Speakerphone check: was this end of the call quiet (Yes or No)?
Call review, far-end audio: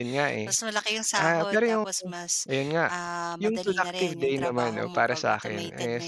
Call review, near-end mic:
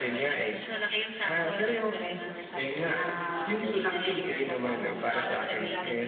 No